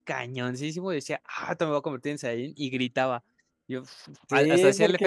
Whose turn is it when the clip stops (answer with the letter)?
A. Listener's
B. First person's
A